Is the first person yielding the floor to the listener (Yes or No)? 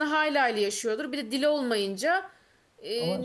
No